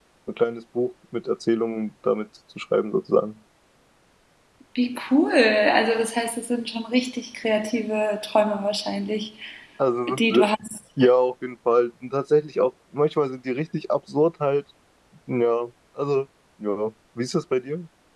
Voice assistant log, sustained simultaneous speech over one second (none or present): none